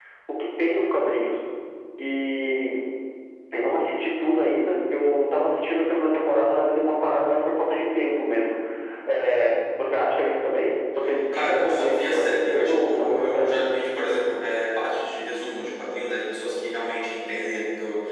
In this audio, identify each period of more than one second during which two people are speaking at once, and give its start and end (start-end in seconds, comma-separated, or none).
11.3-13.5